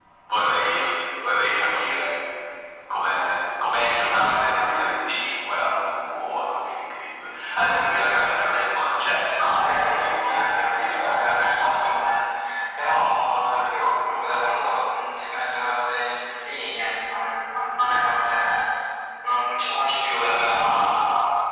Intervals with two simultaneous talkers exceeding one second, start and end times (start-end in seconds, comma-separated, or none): 9.4-11.9